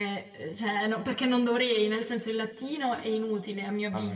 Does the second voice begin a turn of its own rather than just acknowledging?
Yes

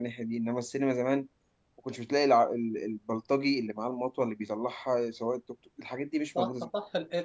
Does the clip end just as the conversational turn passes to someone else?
Yes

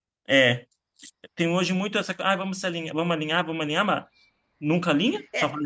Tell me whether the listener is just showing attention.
No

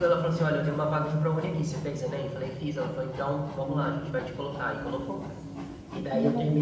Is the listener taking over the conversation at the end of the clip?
No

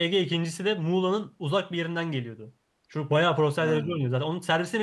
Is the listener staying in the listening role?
Yes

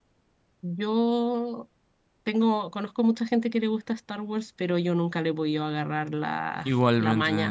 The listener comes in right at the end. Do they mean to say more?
Yes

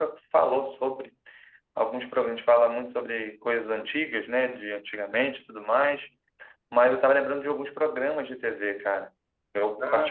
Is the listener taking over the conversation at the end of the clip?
No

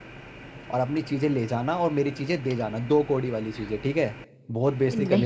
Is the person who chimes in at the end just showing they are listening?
No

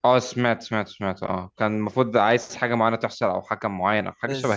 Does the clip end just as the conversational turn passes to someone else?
Yes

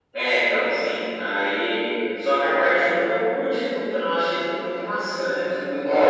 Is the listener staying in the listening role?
No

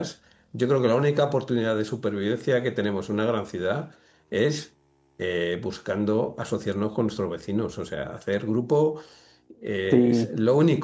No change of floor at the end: Yes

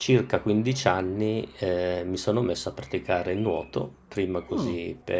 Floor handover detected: No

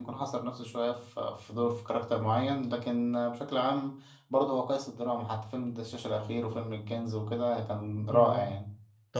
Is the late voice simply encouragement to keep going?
No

